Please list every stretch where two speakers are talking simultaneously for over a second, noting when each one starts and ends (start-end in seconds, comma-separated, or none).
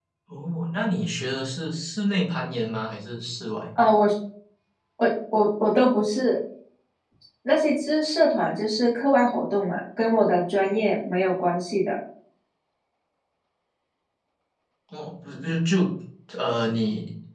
none